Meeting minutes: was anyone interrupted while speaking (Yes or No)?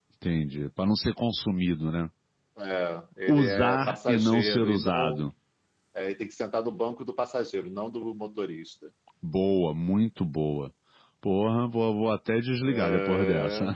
Yes